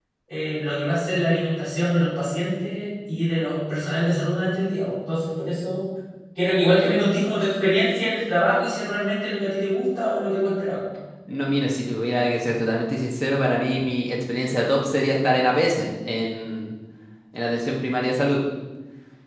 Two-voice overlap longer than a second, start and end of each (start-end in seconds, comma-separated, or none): none